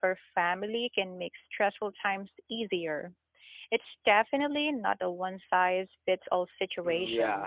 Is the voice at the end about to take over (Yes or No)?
Yes